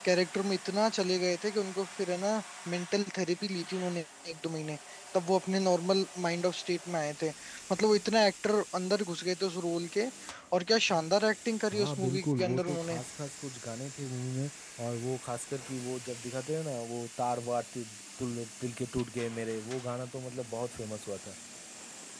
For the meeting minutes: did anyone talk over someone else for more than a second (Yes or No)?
Yes